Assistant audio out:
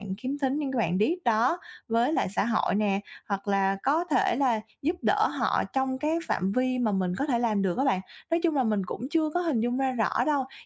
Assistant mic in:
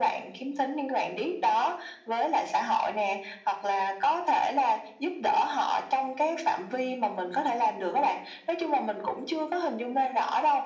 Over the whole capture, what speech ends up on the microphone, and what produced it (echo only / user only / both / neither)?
echo only